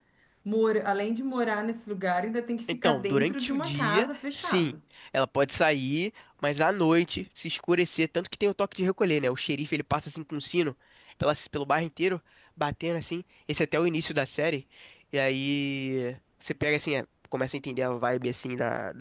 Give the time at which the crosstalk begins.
2.7 s

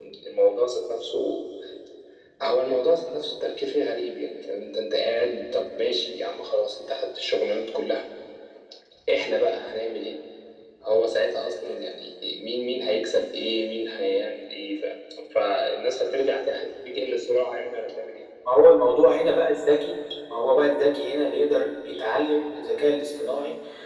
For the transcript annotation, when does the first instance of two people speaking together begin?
none

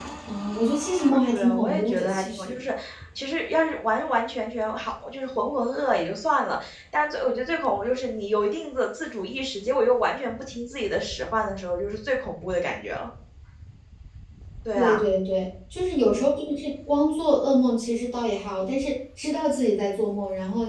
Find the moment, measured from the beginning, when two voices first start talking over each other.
1.3 s

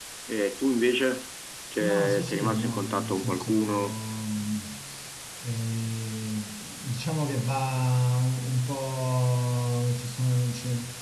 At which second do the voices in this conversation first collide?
1.8 s

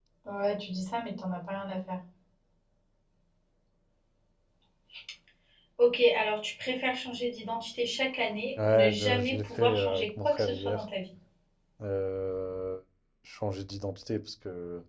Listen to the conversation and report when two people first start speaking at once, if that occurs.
8.6 s

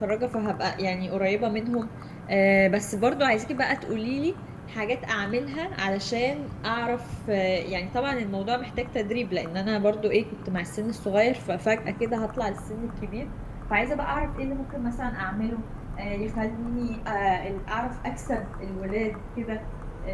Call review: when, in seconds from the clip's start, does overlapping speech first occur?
none

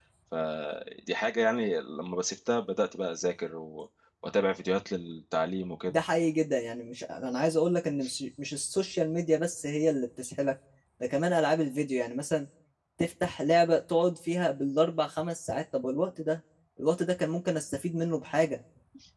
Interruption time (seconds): none

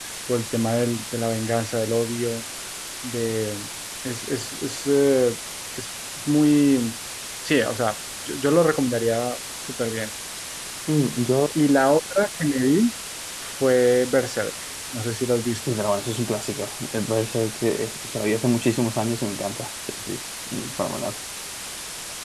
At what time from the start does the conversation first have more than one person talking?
none

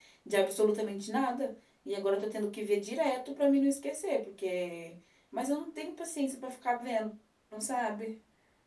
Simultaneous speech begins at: none

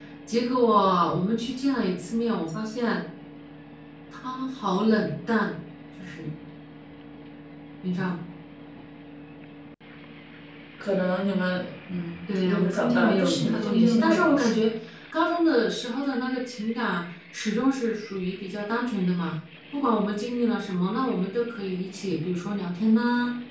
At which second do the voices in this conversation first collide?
12.3 s

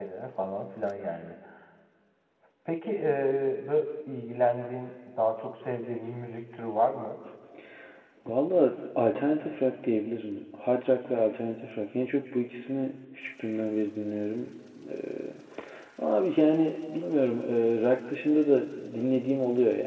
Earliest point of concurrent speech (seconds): none

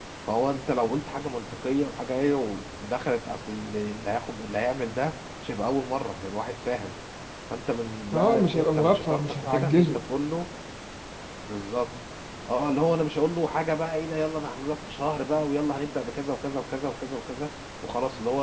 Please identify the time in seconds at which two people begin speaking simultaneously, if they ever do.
8.1 s

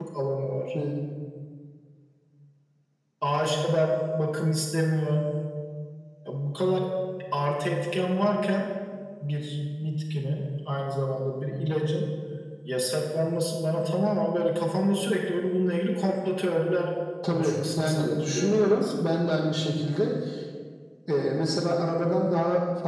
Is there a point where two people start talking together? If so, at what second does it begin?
17.3 s

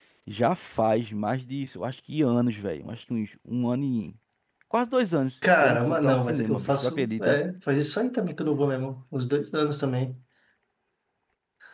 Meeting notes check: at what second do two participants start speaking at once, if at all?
5.4 s

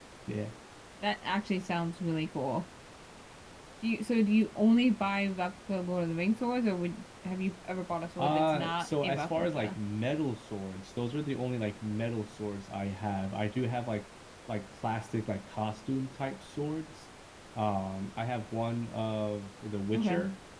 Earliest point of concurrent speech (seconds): 8.2 s

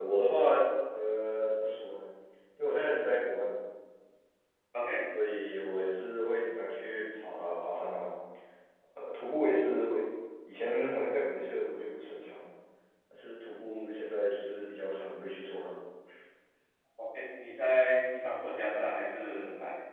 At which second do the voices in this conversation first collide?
none

